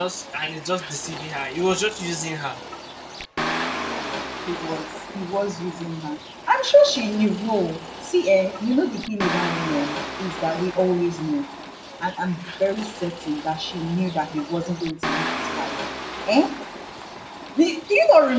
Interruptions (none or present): none